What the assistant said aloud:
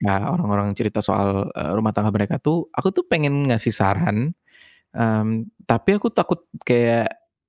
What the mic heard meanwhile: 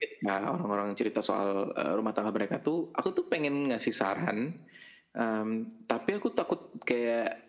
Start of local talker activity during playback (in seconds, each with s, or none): none